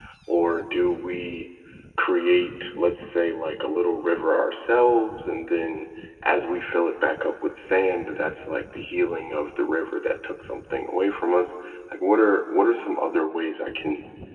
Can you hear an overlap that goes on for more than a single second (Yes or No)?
No